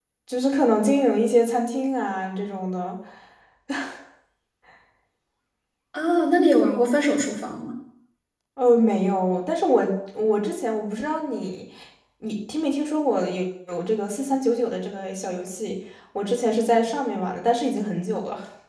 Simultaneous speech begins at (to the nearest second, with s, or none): none